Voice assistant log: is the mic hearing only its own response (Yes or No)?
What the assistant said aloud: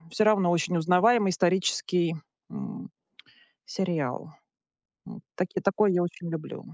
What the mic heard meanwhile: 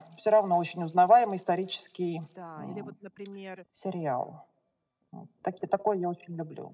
No